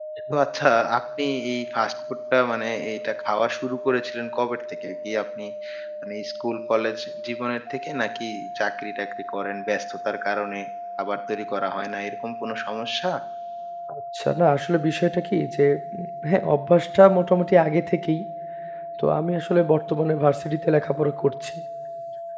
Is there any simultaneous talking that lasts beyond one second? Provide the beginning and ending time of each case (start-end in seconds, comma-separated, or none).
none